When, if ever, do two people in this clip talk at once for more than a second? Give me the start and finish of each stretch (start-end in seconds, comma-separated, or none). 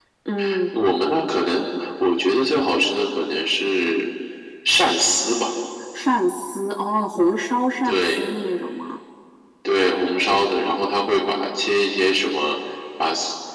none